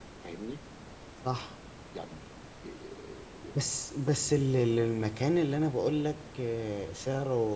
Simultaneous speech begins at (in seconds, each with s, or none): none